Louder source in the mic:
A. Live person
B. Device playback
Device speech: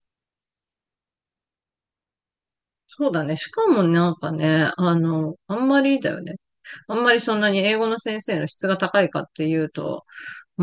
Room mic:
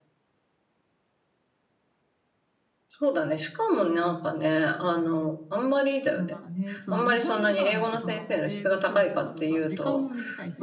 B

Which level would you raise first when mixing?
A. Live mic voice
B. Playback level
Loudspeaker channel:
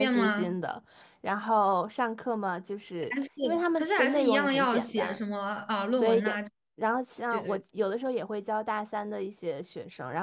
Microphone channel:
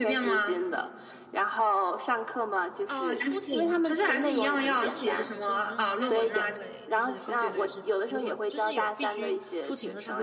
A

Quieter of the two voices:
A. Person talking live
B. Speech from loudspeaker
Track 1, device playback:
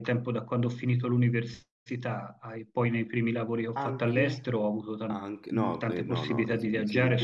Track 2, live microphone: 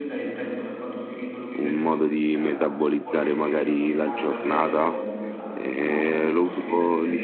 B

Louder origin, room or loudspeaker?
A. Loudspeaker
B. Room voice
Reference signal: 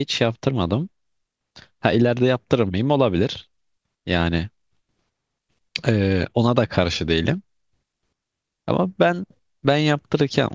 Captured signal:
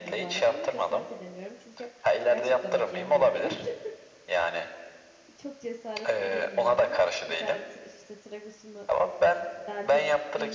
A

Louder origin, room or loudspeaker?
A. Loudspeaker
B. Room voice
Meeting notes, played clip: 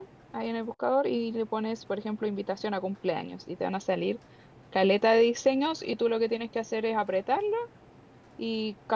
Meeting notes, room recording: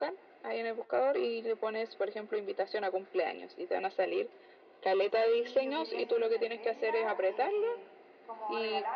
A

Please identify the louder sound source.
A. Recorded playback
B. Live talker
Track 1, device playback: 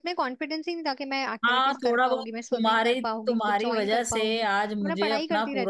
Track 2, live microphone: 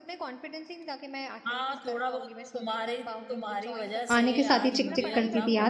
B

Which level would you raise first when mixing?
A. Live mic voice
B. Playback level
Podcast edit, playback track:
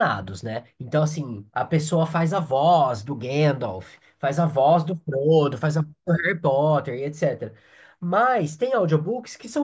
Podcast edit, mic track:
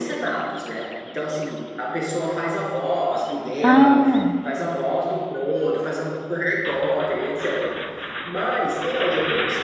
B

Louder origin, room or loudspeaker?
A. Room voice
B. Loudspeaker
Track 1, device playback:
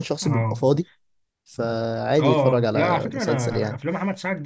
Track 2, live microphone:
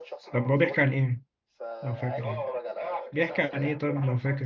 A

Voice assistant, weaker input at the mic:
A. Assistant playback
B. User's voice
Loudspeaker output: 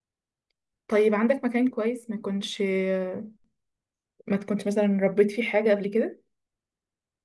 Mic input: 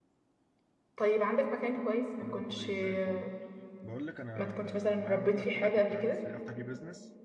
B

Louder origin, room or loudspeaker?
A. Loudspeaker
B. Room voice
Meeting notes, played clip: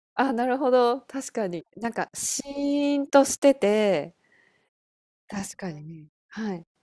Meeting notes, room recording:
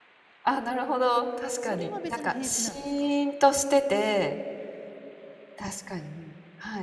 A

